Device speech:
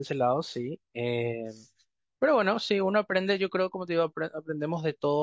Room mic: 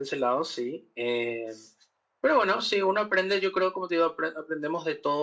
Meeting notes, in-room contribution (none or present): none